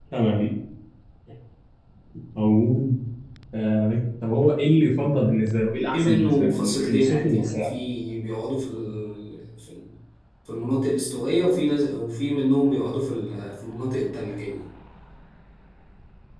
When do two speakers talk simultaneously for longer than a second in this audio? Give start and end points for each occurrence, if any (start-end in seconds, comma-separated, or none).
5.9-7.7